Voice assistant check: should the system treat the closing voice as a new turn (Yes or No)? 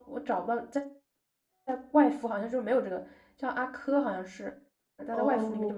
Yes